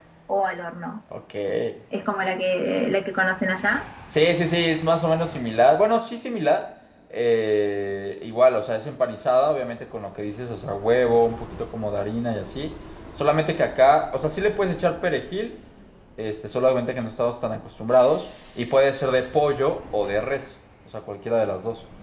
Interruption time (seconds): none

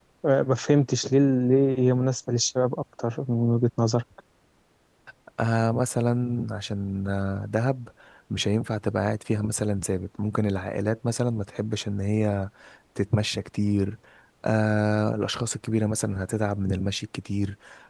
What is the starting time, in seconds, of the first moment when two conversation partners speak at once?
none

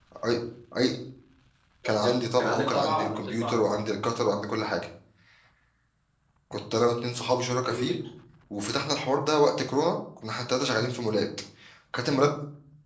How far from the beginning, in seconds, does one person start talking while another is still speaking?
1.9 s

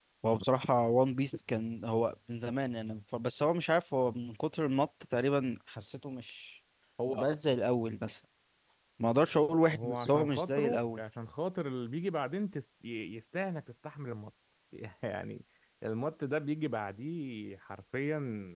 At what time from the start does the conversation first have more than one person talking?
9.7 s

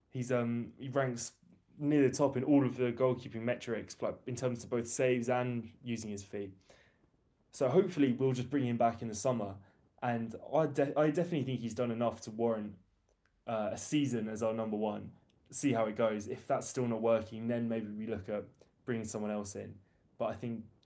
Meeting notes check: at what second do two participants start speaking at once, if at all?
none

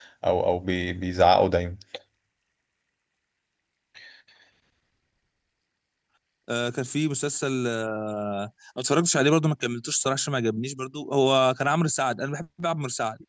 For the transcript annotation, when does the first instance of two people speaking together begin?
none

